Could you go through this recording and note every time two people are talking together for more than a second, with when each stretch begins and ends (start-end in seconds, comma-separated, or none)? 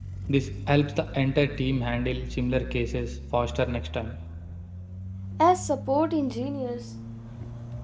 none